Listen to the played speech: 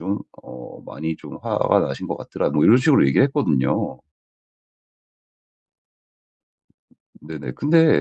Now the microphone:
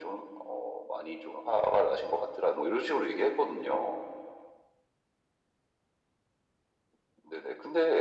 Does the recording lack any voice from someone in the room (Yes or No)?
Yes